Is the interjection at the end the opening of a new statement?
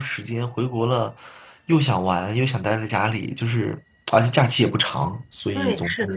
Yes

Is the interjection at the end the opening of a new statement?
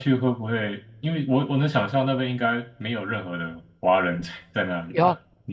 Yes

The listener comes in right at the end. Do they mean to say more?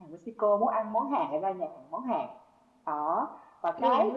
No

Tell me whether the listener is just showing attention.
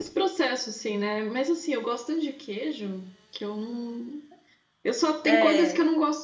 Yes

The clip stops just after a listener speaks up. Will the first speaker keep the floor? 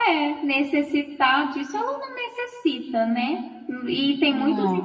Yes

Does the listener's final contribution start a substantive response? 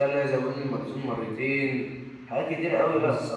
No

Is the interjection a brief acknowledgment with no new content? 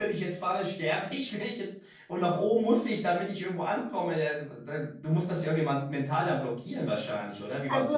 No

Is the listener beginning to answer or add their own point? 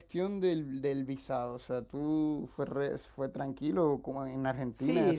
Yes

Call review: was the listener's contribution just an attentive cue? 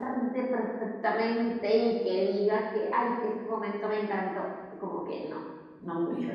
No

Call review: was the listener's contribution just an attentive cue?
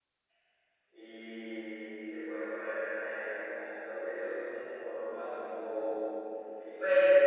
No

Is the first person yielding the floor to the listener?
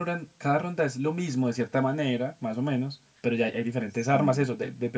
No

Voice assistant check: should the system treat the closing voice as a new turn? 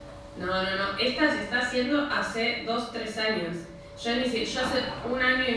No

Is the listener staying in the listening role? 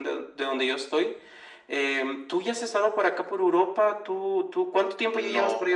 No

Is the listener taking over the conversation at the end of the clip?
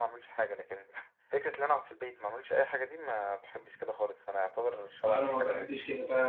Yes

